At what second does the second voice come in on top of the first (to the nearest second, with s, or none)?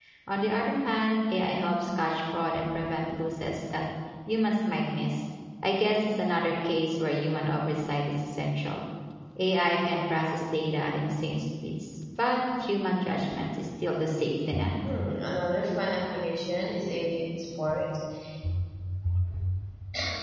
none